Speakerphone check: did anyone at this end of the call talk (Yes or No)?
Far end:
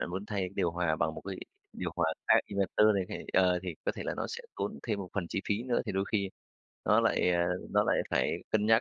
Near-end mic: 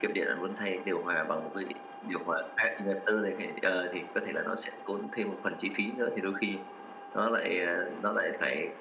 No